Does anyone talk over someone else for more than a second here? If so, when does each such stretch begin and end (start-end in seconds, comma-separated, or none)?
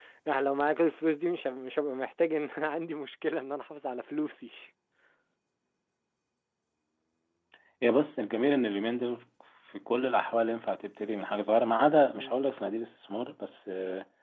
none